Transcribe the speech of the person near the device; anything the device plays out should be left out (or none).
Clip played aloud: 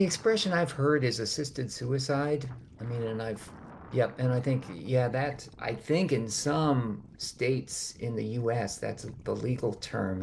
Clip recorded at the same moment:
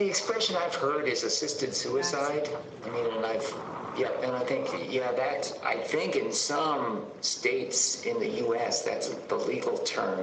That's it.